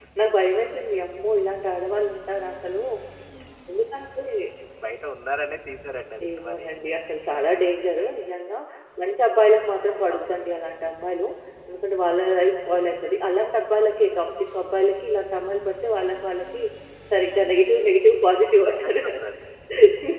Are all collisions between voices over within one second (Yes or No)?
Yes